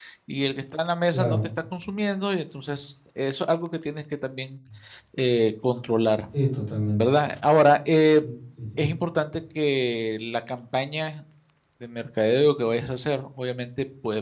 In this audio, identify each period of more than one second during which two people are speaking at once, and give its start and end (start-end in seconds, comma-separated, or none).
none